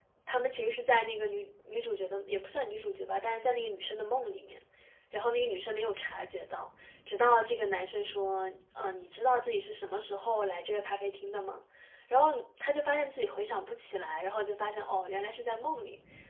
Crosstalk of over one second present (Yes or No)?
No